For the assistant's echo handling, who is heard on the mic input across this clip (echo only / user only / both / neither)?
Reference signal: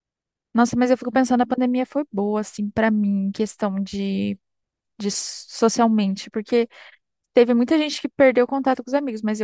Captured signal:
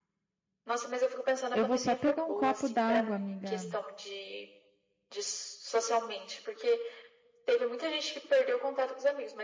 both